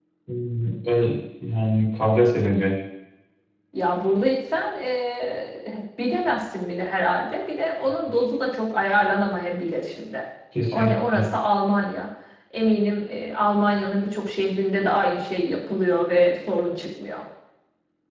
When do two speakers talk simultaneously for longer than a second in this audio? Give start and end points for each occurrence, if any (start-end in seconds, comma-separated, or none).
none